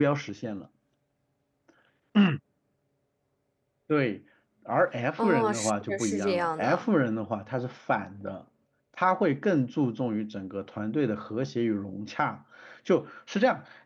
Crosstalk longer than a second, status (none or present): present